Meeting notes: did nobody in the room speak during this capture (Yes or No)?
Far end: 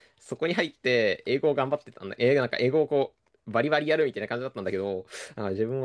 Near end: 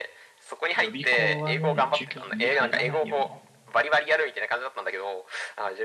No